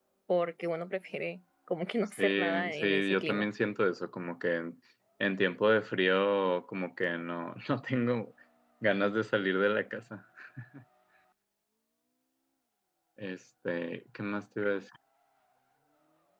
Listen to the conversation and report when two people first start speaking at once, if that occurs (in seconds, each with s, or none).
2.2 s